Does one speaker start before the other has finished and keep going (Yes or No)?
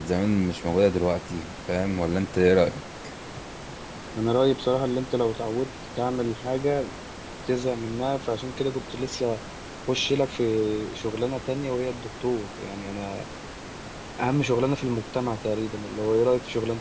No